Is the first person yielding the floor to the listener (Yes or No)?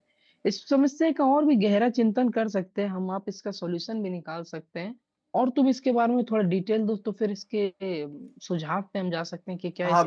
Yes